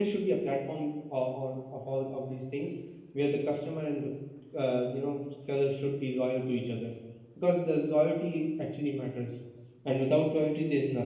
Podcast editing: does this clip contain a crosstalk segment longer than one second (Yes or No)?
No